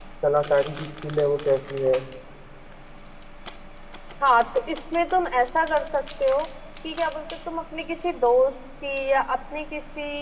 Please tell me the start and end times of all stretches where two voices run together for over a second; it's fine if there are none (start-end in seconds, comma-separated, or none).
none